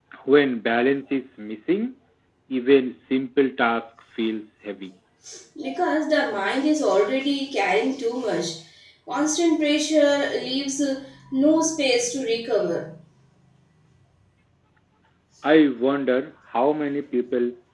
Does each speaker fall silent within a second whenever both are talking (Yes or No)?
Yes